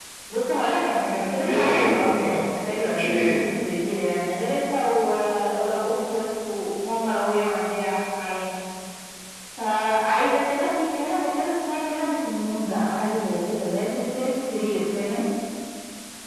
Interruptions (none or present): present